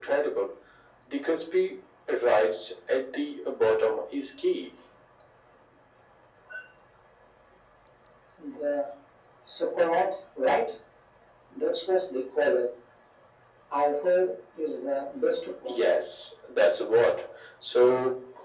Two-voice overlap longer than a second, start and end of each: none

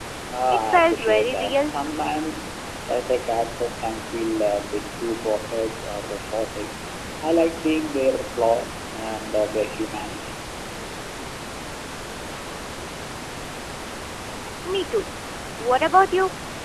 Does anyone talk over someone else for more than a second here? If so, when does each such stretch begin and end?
0.5-1.7

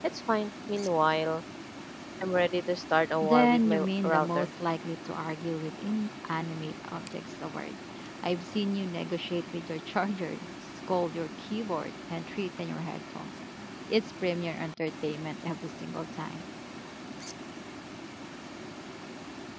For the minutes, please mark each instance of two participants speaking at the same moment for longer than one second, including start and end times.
3.2-4.5

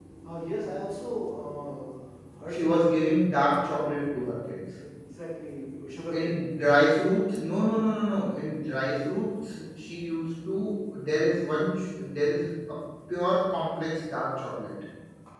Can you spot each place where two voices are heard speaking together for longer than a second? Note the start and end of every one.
none

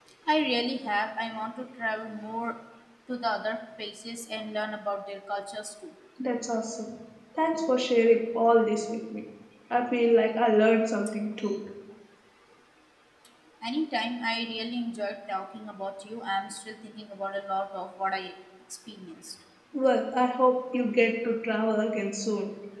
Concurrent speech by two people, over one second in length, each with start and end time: none

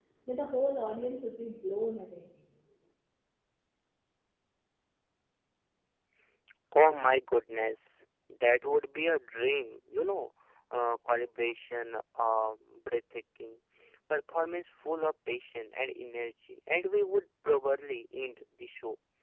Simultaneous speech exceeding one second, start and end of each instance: none

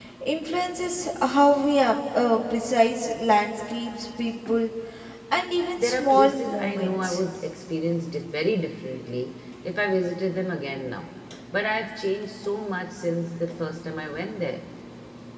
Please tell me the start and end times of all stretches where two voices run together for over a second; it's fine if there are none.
5.8-7.2

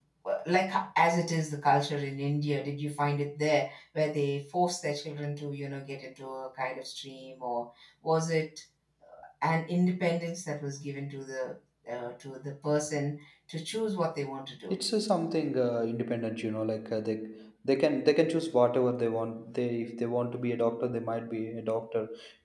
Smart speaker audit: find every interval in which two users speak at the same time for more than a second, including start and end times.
none

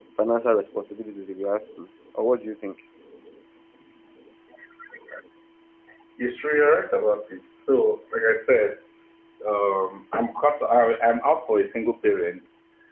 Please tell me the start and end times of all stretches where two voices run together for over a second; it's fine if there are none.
none

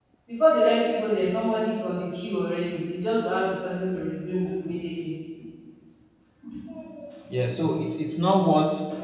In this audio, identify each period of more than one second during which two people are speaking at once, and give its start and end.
none

